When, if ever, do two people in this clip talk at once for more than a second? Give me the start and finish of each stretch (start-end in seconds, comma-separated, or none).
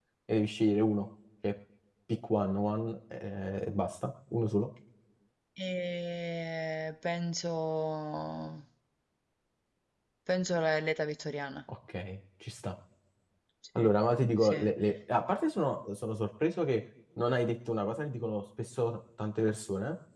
none